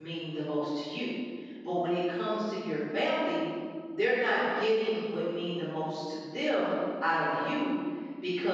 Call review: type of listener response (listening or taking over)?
listening